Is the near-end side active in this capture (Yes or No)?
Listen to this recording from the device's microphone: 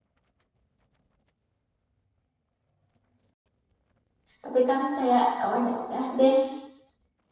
Yes